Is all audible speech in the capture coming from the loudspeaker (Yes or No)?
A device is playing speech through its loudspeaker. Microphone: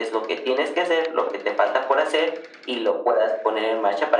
Yes